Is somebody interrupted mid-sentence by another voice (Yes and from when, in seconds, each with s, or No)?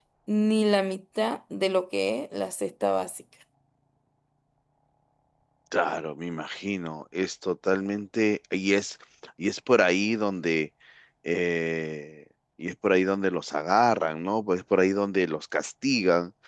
No